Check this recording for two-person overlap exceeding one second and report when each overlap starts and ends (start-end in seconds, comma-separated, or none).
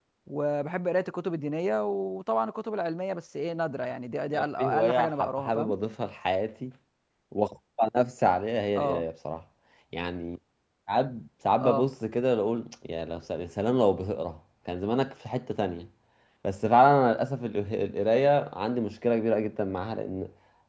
4.3-5.7